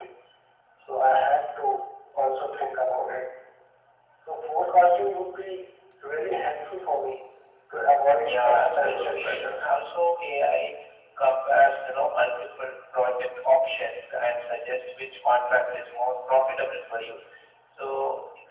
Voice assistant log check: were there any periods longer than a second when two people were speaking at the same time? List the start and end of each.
8.0-9.7

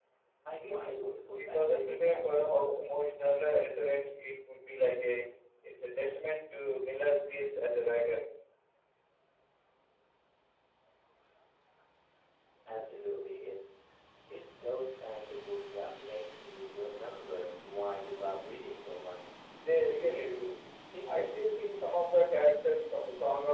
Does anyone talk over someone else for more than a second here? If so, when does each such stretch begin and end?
0.6-2.5

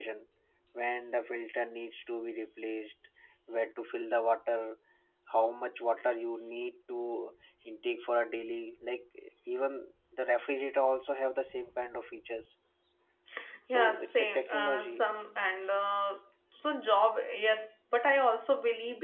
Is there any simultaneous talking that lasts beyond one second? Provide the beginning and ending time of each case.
13.7-15.0

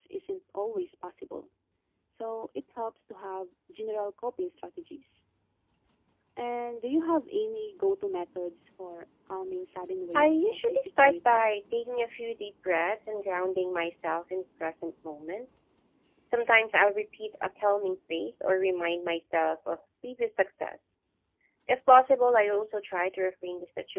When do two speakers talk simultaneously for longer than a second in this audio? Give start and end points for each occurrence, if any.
10.2-11.4

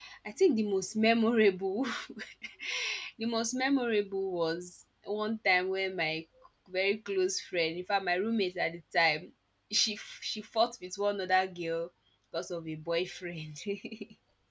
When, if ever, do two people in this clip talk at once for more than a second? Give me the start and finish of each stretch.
none

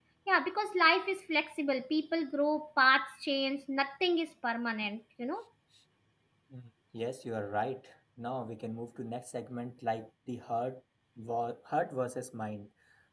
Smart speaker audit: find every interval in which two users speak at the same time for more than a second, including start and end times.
none

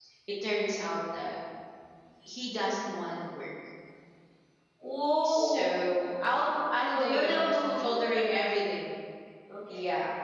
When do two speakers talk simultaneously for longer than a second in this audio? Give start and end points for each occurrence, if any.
6.9-8.3

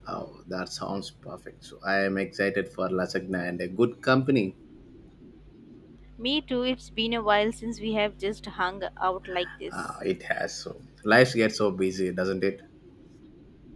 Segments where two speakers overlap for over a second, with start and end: none

